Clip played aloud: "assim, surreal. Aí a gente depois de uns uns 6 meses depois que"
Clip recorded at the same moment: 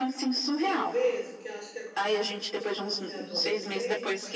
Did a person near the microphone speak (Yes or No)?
Yes